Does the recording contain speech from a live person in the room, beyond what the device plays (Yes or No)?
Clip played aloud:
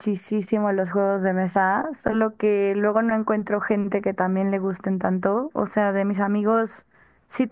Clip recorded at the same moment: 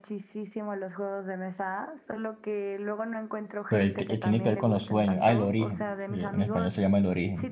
Yes